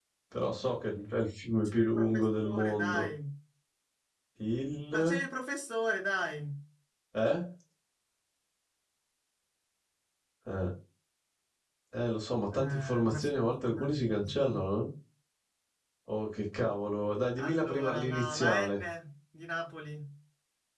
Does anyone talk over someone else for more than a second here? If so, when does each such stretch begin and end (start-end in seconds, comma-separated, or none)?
1.6-3.1, 12.5-14.6, 17.4-18.8